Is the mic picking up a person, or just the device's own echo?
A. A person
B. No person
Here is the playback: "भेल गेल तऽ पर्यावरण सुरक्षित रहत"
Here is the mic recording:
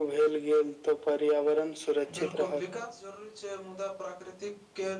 A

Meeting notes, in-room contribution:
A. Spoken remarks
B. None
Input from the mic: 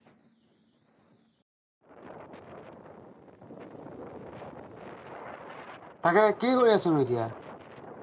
A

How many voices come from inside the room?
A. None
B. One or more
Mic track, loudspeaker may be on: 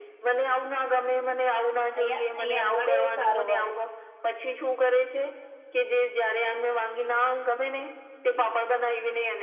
B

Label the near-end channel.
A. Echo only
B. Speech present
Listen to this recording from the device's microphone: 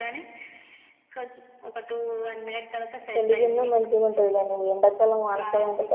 B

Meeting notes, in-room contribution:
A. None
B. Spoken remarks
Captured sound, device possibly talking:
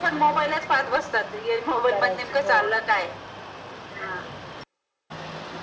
B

